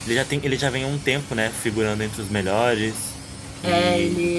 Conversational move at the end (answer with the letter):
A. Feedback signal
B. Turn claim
B